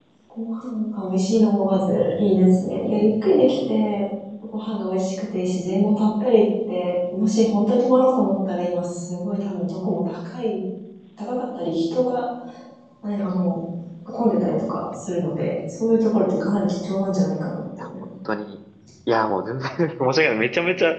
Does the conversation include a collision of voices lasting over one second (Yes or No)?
No